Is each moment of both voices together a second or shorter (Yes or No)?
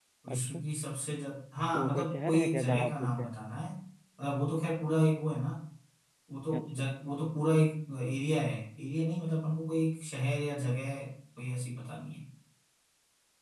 No